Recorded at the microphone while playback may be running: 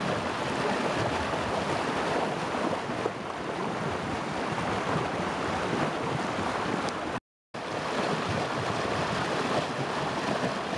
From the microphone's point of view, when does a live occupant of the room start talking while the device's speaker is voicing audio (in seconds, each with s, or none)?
none